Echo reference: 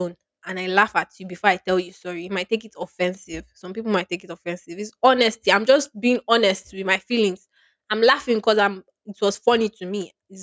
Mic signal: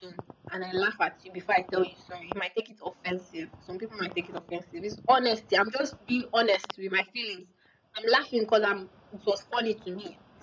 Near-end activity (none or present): none